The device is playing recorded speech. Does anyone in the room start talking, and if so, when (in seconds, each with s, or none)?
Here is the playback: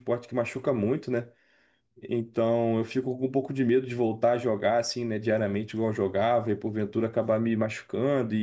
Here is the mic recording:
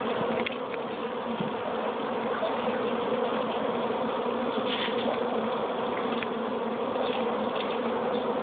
none